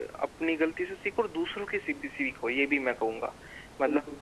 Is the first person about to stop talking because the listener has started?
Yes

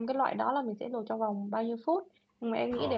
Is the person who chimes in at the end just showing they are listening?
Yes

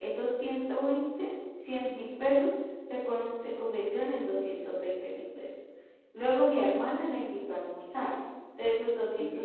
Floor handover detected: No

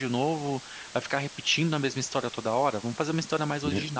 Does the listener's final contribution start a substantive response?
No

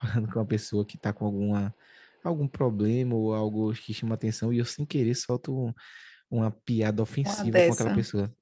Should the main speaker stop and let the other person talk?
No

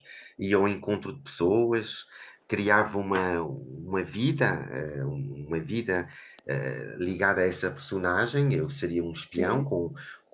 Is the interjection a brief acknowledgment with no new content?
Yes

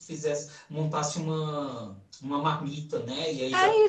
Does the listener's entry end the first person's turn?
No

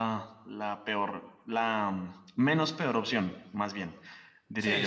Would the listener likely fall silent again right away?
No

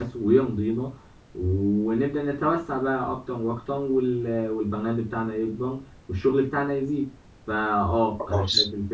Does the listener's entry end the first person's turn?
No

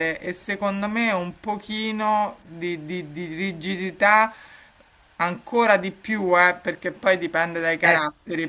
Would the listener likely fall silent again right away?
Yes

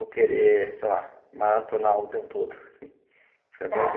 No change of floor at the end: No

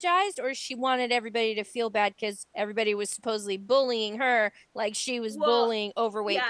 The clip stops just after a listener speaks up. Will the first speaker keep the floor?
No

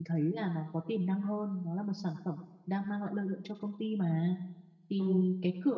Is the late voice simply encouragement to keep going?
Yes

